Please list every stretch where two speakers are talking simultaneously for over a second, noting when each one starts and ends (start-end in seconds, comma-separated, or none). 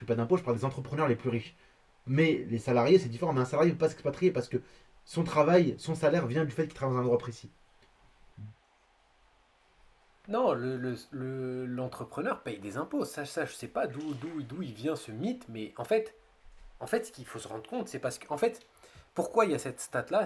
none